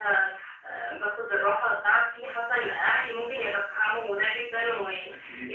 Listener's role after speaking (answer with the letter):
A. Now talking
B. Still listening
B